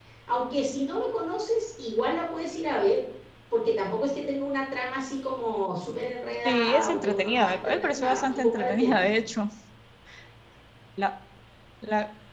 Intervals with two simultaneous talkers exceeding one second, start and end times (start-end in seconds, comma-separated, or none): 6.4-9.0